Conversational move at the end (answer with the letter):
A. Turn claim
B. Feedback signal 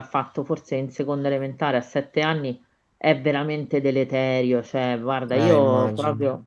B